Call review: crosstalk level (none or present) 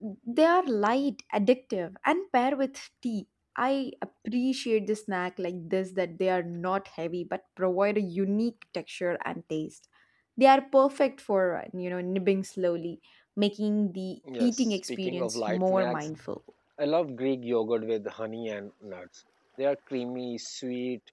present